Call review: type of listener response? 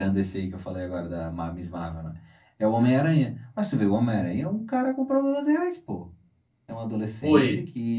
listening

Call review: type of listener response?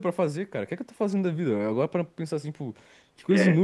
listening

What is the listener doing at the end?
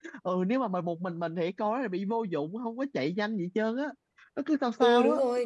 taking over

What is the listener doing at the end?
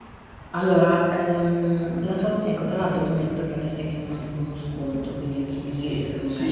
taking over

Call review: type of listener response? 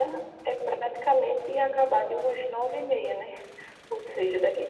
listening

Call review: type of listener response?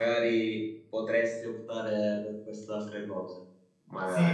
taking over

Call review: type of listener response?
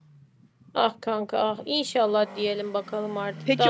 taking over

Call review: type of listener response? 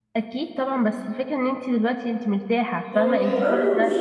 taking over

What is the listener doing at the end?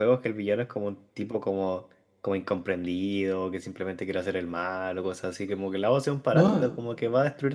listening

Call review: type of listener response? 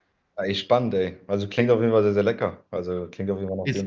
taking over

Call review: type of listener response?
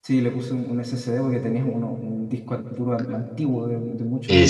taking over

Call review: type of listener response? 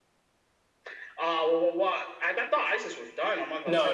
taking over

